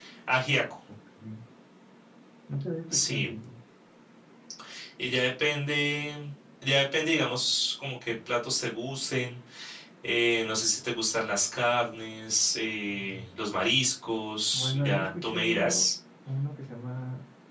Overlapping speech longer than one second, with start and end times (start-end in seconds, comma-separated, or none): 14.5-15.9